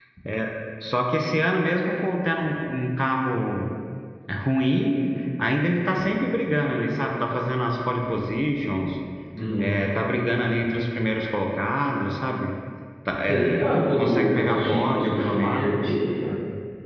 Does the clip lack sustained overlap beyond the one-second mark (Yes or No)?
No